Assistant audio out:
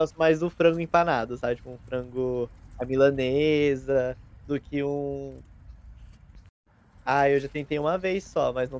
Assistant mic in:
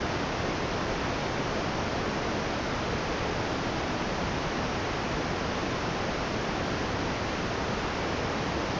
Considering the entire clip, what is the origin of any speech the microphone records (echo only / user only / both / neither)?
neither